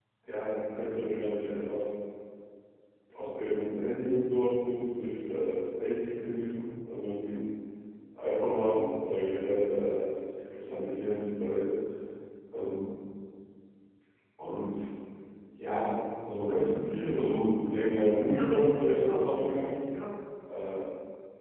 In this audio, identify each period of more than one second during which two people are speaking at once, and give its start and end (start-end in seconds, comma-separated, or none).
18.1-19.6